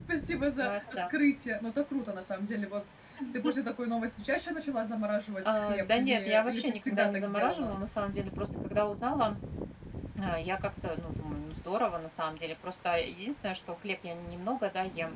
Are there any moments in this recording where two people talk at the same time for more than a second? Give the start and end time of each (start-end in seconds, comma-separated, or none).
5.5-7.7